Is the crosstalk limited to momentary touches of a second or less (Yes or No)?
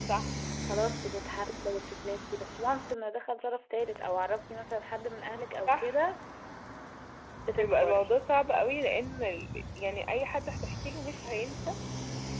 Yes